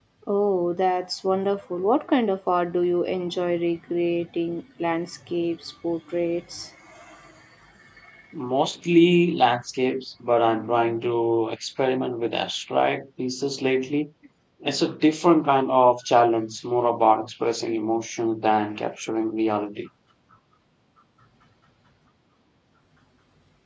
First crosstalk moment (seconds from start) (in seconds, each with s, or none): none